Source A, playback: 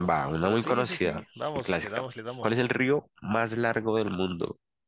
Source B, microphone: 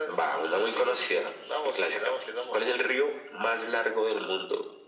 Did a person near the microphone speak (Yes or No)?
No